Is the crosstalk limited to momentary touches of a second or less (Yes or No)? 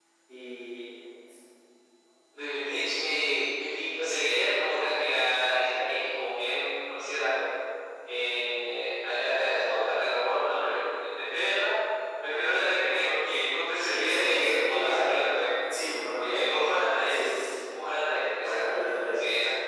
No